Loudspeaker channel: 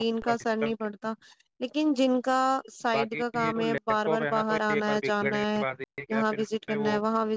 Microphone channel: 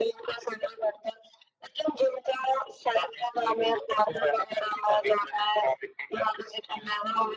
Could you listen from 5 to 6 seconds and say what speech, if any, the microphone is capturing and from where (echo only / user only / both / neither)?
echo only